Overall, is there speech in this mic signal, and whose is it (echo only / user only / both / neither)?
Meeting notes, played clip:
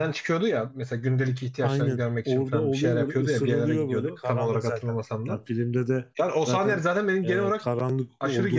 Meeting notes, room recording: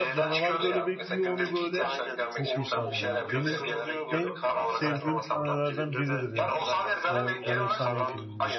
both